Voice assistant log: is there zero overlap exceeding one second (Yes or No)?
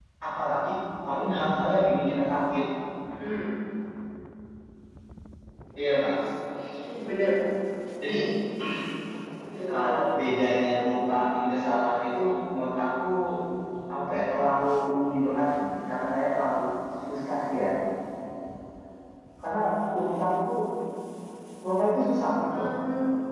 Yes